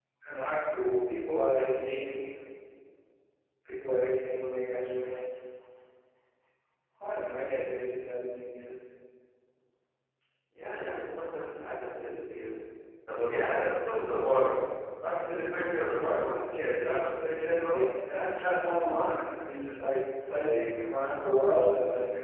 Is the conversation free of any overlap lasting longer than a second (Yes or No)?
Yes